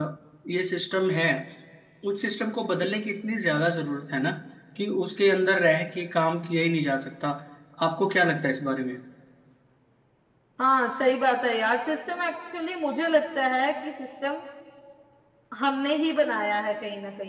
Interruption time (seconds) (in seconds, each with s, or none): none